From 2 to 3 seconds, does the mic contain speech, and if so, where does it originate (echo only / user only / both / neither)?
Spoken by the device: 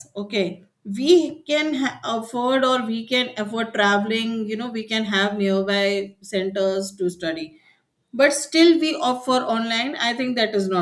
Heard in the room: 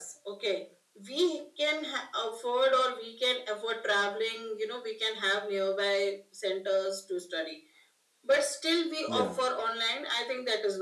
echo only